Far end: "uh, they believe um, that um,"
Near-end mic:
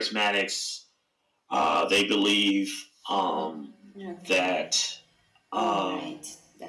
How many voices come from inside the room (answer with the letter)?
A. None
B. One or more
B